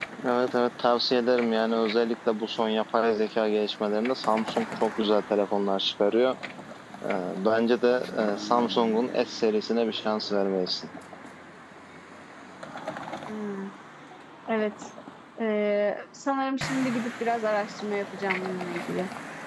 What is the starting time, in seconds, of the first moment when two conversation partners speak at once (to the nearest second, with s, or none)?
none